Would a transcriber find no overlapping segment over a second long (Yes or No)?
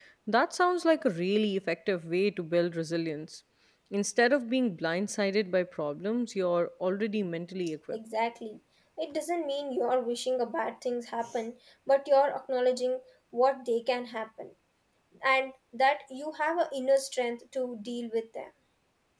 Yes